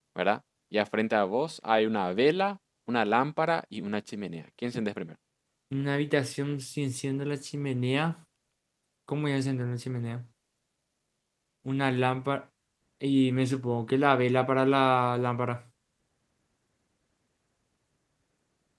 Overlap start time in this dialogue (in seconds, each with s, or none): none